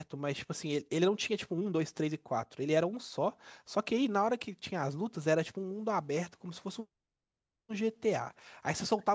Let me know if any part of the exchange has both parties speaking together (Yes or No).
No